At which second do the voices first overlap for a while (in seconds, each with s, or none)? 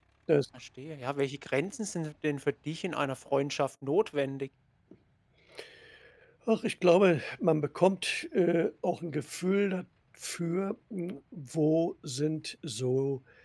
none